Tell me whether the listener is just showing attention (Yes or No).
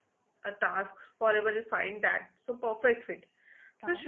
Yes